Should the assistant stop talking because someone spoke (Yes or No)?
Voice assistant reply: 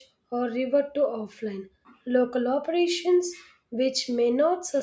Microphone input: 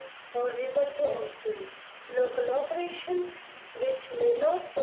No